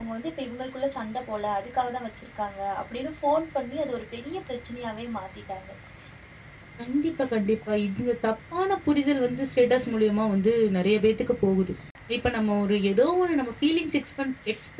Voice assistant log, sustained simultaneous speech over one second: none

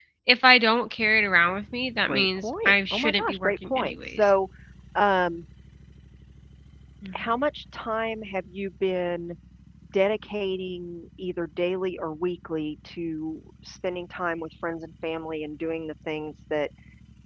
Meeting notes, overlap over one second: present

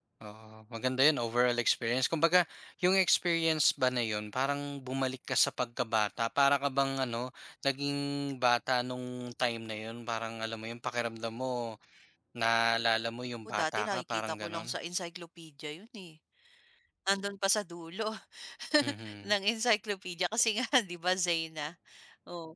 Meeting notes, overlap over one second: present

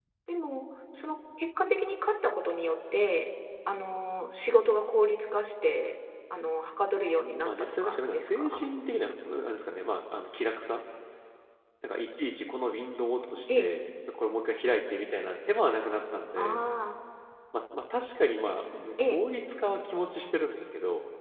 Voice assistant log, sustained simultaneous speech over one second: present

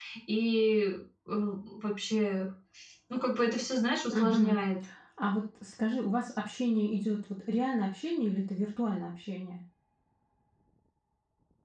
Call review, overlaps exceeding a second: none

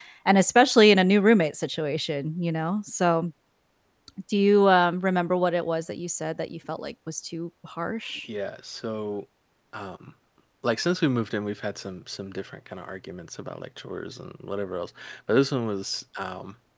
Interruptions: none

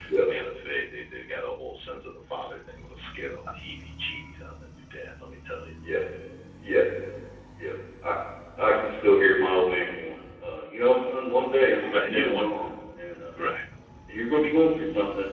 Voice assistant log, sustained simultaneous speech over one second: none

